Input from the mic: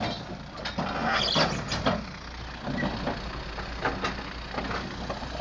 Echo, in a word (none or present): none